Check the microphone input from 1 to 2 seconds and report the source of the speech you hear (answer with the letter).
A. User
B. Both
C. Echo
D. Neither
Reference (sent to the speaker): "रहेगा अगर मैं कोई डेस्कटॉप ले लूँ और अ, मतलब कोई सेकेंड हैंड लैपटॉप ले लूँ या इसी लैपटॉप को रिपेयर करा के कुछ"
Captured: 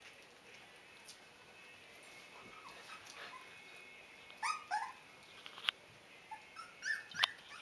D